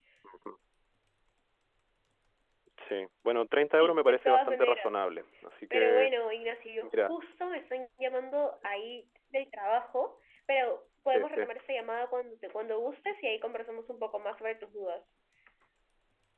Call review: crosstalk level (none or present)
present